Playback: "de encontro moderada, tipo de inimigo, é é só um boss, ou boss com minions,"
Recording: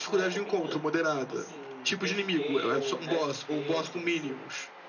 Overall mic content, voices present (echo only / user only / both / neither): both